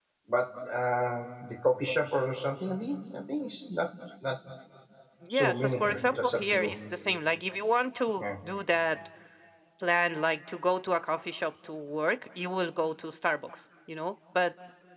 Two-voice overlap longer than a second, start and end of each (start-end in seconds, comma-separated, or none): 5.3-6.7